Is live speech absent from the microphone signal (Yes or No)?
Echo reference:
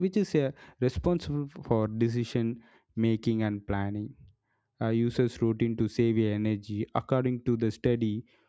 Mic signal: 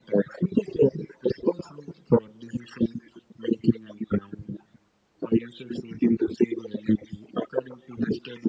Yes